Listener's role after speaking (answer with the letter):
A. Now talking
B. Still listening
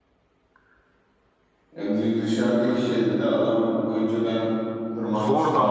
A